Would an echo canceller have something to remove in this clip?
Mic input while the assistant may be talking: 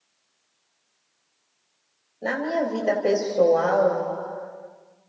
No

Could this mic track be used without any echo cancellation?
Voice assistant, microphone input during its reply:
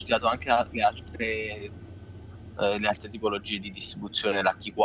Yes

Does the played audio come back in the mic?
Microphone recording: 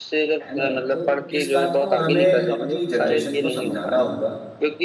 Yes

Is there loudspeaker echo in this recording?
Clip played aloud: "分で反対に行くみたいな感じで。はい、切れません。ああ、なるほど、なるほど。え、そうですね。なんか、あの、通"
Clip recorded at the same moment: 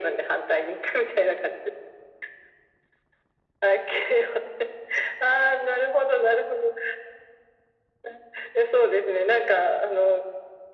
Yes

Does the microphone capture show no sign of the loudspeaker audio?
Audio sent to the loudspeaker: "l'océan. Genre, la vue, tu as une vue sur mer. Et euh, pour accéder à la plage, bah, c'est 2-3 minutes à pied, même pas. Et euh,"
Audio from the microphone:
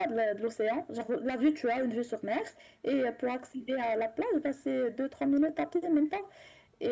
No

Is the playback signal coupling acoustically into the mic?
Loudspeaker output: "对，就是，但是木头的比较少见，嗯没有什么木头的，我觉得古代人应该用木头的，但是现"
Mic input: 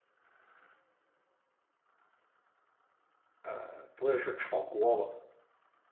No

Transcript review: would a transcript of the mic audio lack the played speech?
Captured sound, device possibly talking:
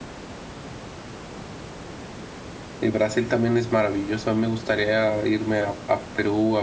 Yes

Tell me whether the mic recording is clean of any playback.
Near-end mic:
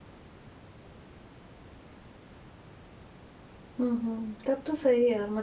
Yes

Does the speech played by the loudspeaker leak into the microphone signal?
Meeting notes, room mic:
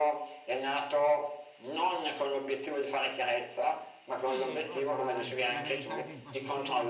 Yes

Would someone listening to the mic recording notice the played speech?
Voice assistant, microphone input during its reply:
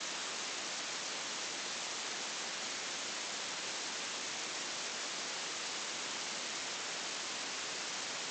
No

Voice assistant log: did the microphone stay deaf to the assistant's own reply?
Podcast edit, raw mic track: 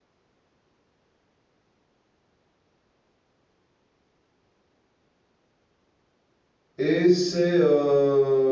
Yes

